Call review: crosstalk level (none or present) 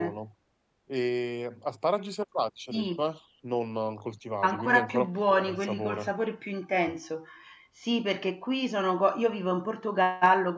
present